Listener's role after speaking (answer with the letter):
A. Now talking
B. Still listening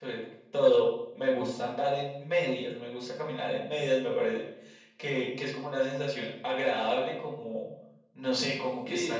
B